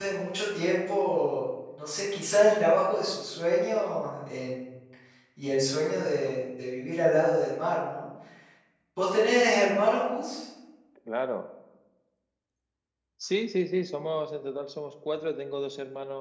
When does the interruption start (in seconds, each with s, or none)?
none